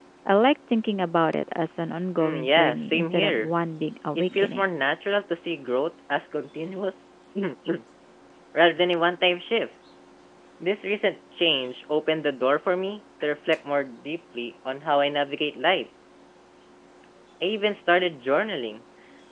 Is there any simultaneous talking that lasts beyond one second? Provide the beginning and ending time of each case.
2.2-3.5

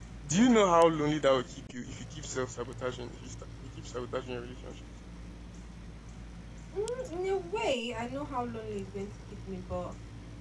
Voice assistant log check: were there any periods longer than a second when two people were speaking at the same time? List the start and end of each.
none

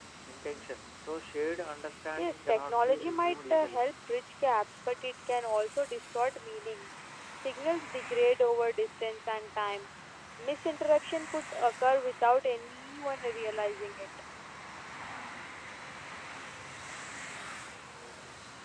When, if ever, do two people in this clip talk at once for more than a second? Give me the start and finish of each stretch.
2.2-3.9

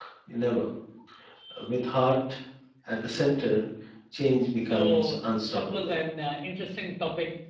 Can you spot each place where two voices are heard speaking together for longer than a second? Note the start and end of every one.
4.7-5.9

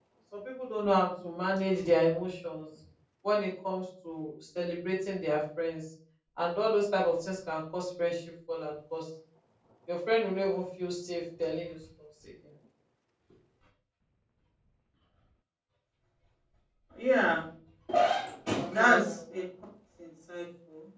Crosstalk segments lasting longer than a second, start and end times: none

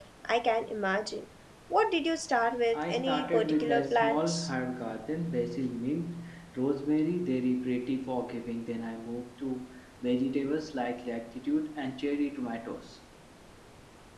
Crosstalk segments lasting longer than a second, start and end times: 2.7-4.5

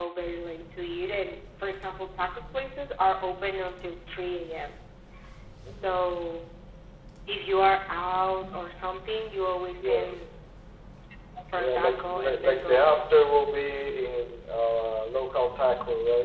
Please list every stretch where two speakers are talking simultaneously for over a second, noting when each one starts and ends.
11.6-12.8

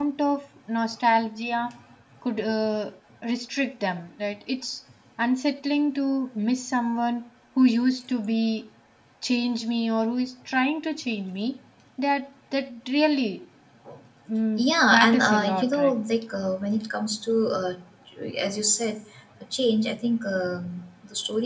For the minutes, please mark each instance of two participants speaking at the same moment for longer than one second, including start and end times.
14.6-15.9

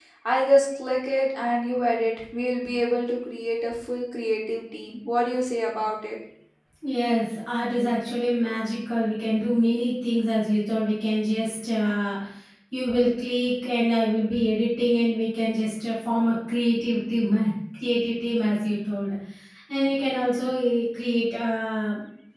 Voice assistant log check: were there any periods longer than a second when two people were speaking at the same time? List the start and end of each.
none

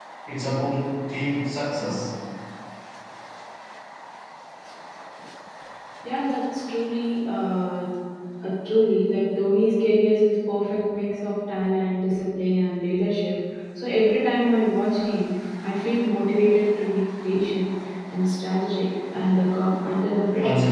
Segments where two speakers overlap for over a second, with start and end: none

